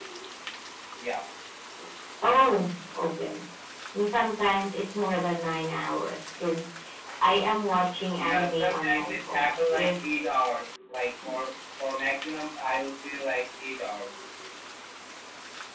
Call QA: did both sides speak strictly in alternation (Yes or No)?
No